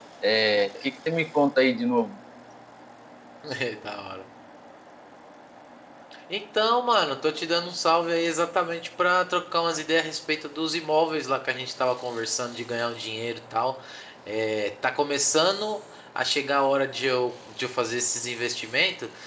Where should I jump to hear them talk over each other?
none

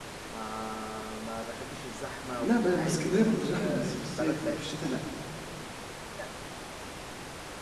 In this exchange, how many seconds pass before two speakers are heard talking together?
2 s

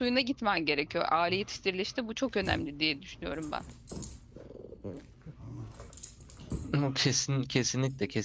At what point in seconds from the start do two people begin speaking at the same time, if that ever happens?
none

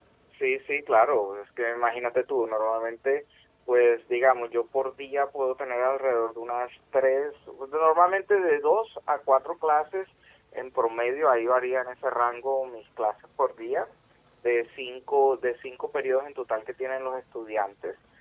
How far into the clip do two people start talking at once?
none

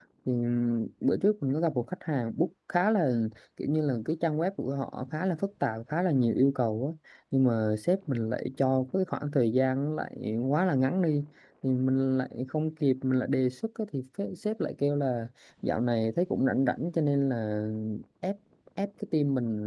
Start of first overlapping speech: none

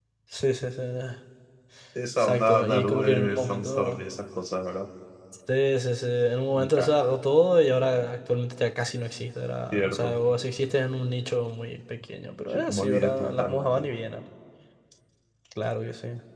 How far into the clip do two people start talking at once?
2 s

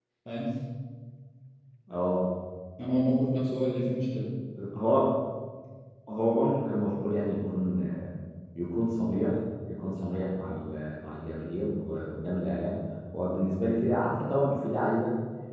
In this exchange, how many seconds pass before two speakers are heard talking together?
none

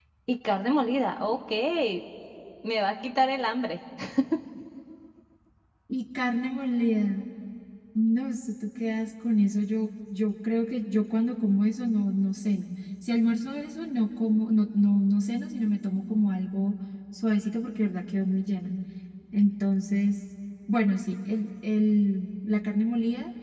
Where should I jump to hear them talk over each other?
none

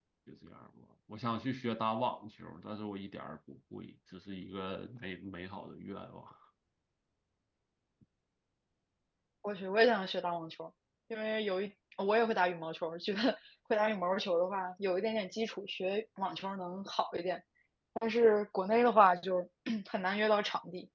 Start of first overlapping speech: none

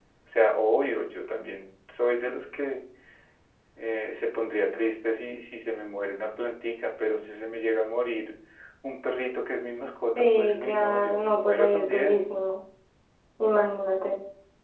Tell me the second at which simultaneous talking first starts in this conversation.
10 s

